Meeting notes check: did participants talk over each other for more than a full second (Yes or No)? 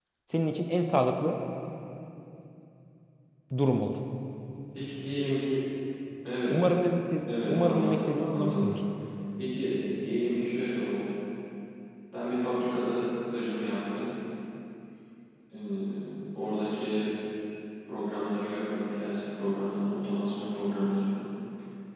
Yes